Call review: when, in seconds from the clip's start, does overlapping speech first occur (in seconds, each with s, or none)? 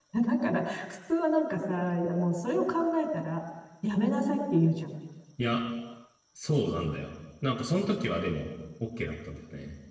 none